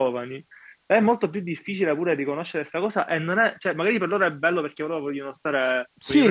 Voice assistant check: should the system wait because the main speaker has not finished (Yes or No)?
No